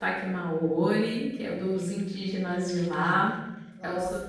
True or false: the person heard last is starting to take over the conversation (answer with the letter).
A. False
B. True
B